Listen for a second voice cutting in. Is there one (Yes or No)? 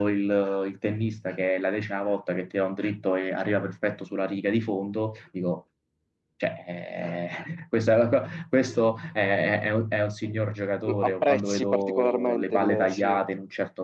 Yes